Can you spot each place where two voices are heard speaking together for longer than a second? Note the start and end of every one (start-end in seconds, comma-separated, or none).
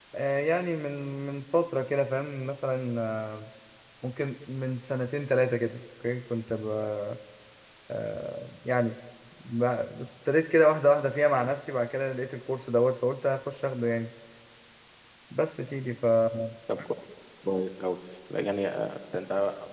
none